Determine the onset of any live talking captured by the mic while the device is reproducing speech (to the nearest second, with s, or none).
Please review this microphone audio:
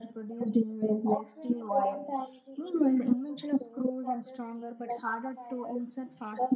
none